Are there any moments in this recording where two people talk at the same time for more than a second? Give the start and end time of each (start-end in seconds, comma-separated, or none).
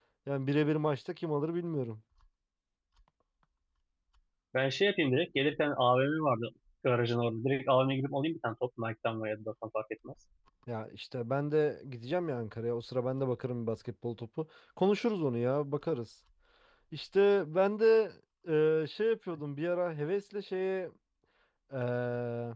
none